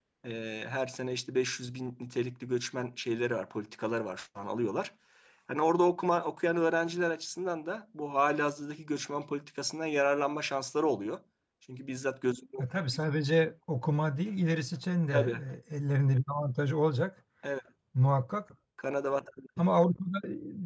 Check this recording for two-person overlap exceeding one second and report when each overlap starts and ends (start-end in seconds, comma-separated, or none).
none